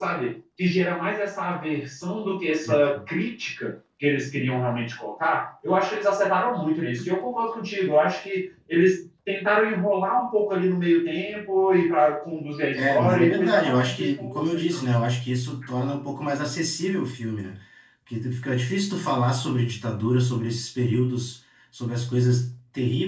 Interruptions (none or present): present